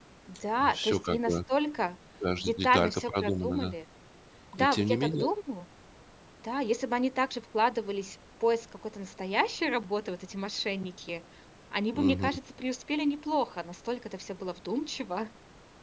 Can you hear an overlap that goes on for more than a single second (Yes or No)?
Yes